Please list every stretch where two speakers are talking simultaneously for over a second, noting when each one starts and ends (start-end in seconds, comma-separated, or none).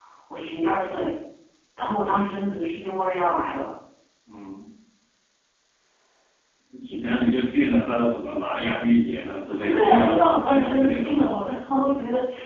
9.6-11.2